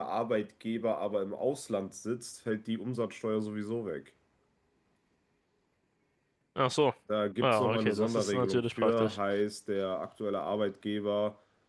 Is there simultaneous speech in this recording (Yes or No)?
Yes